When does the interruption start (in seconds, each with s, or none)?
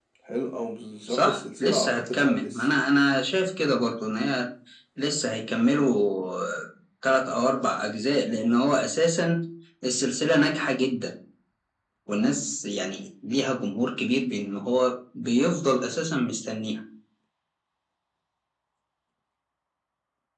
1.1 s